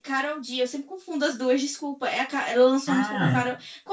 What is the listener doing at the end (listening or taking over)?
listening